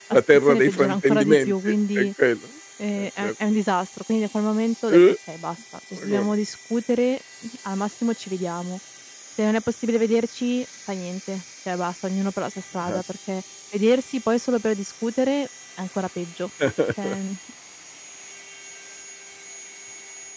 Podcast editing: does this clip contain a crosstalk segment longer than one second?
Yes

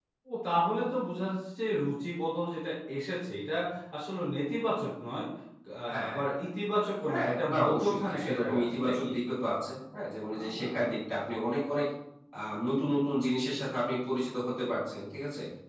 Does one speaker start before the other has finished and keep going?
Yes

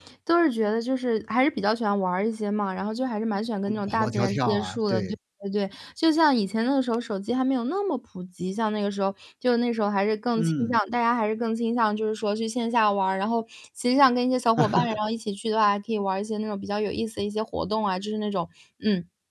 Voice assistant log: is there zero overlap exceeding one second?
No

